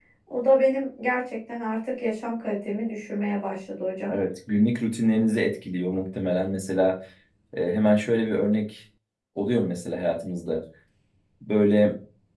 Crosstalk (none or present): none